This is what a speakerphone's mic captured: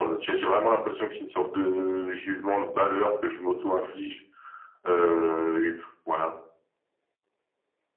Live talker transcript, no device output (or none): none